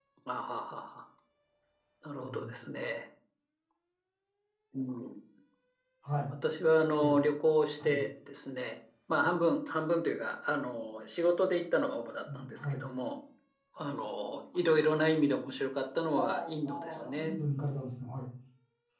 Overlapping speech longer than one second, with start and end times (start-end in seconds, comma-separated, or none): 16.2-17.4